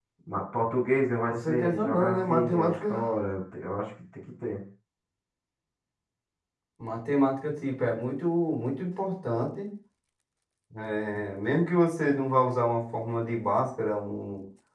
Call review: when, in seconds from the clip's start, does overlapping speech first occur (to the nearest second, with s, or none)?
1 s